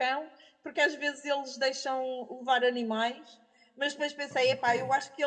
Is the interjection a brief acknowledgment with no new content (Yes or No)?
Yes